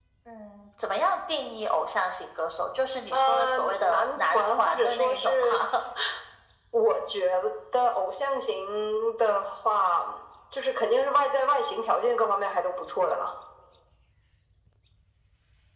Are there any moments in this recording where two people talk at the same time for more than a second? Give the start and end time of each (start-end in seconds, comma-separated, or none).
3.1-5.6